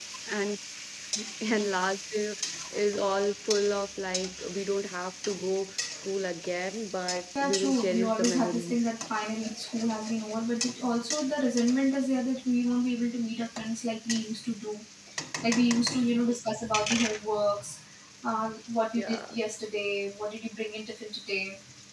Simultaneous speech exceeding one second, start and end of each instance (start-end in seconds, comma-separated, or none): 7.4-8.9